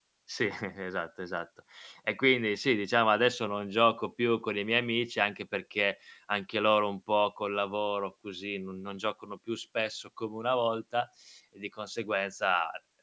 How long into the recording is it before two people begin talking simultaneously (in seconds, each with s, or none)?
none